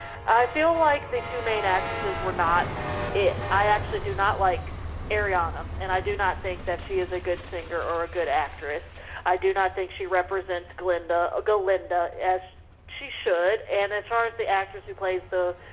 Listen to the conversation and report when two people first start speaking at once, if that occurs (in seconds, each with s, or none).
none